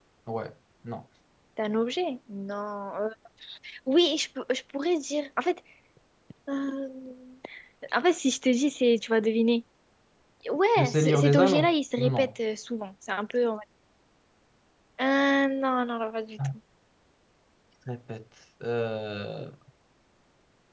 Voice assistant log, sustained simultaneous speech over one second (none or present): present